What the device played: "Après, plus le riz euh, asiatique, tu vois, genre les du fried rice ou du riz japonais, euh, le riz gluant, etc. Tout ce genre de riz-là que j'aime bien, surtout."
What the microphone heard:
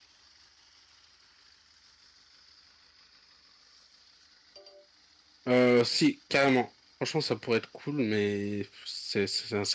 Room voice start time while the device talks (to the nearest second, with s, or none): 5 s